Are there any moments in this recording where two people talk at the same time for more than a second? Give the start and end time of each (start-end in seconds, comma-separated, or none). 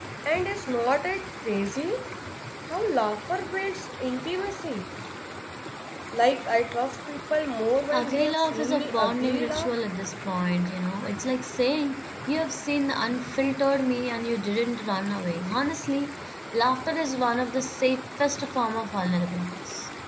7.9-9.7